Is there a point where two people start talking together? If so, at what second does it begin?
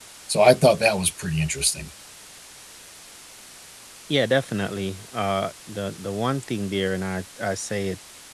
none

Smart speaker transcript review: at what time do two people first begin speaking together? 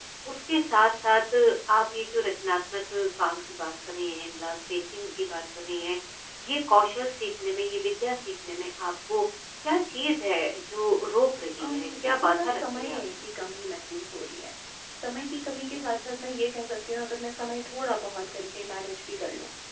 11.6 s

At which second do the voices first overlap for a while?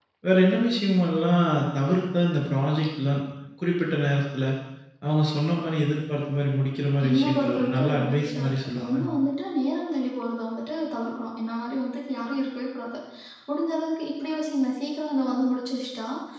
7.0 s

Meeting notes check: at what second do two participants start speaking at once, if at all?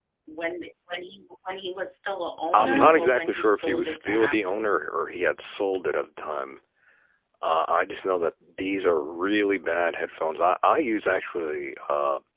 2.5 s

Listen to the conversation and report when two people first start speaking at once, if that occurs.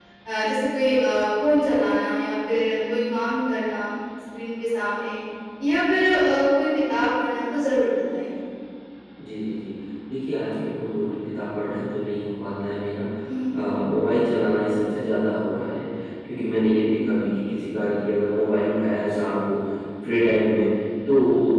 none

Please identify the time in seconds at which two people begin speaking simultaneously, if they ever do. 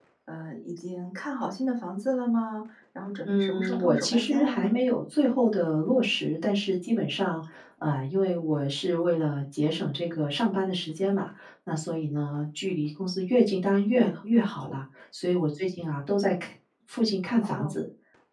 3.2 s

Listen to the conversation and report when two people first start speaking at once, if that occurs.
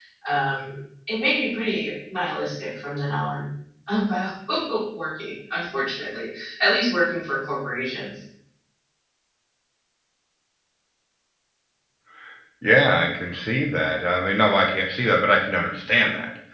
none

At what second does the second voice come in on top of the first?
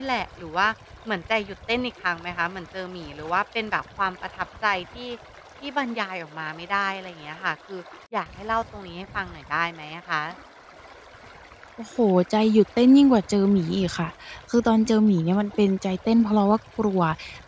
none

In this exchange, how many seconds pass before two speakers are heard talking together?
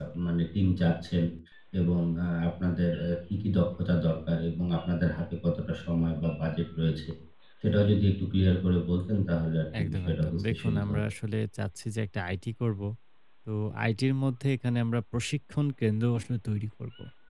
9.7 s

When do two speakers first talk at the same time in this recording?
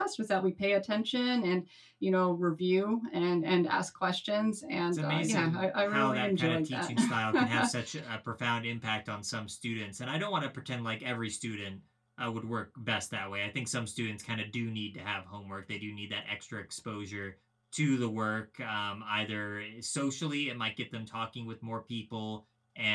4.9 s

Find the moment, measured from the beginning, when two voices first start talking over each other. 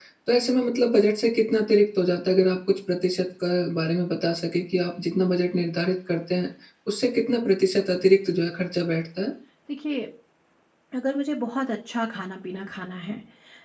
none

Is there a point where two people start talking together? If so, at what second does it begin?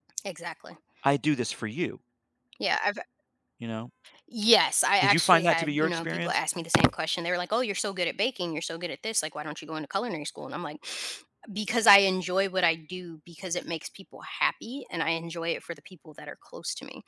5.0 s

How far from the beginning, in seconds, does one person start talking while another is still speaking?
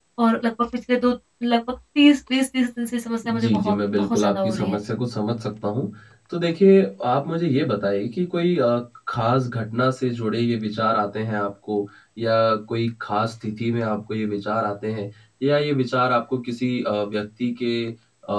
3.2 s

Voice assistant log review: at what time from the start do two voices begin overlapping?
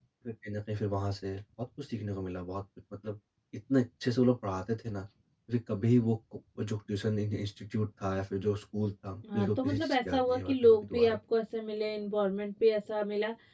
9.2 s

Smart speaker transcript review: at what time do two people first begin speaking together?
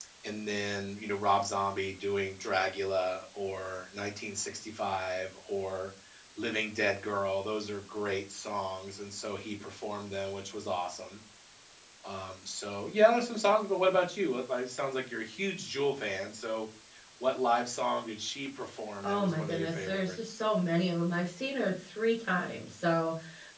19.0 s

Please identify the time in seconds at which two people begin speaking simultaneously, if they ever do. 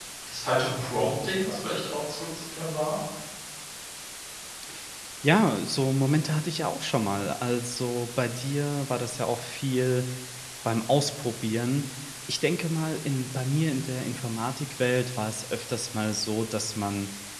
none

